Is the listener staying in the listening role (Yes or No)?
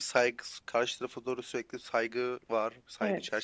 No